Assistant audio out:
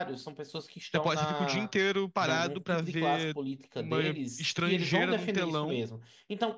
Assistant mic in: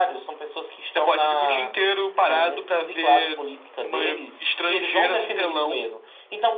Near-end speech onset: none

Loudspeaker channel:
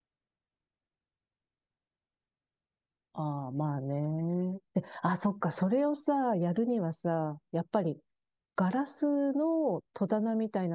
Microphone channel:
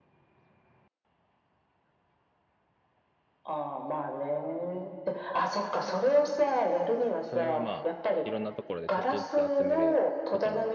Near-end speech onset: 7.2 s

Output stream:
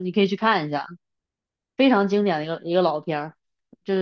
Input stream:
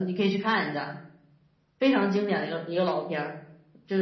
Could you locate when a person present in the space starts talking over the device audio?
none

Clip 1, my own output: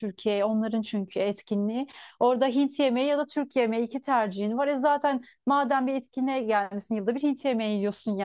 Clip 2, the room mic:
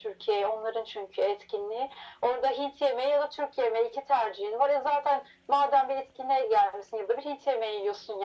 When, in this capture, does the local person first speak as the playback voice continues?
none

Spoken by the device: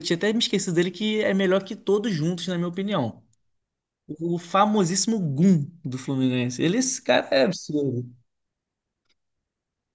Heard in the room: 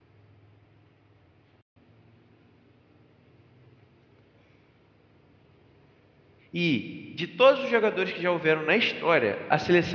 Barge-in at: 6.5 s

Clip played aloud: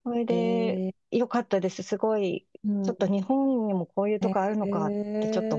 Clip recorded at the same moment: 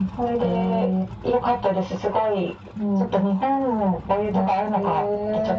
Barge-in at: none

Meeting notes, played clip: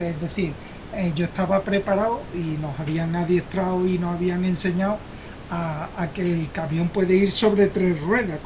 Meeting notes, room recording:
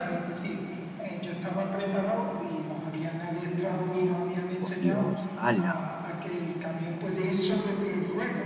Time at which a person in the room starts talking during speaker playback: 4.6 s

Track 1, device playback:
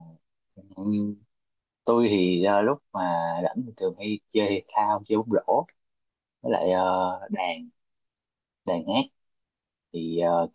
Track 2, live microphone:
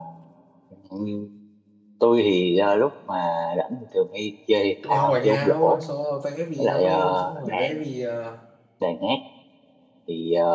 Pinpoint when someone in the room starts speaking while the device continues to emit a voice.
4.8 s

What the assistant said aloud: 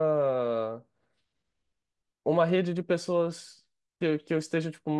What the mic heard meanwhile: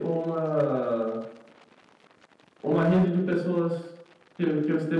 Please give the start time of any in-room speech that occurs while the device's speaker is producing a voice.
none

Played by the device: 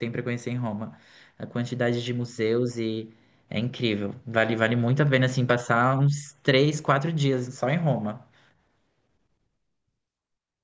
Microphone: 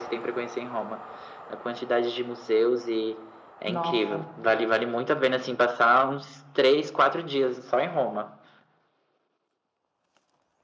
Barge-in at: 3.6 s

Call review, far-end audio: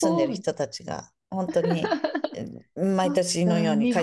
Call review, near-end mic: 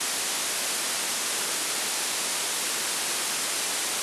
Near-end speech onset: none

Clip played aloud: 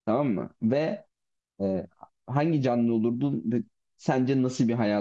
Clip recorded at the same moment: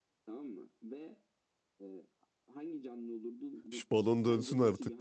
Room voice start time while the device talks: 3.7 s

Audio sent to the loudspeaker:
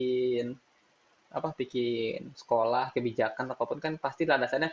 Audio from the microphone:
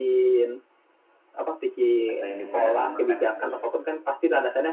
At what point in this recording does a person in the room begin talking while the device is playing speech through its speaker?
2.1 s

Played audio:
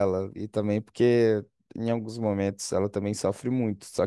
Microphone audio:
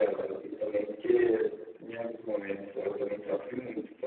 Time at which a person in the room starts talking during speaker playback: none

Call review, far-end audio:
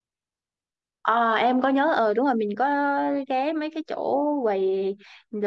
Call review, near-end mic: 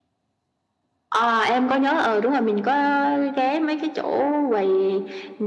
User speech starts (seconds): none

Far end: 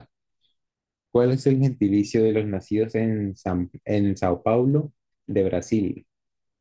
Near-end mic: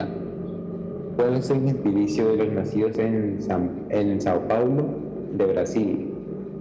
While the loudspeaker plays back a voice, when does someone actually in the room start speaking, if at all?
none

